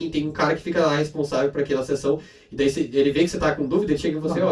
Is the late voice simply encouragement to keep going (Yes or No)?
Yes